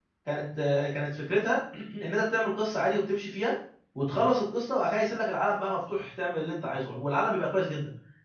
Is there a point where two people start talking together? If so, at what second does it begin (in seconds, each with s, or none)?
none